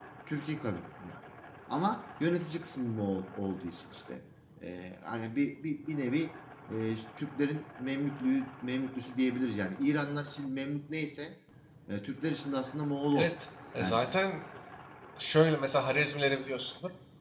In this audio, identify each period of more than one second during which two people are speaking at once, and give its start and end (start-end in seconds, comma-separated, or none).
none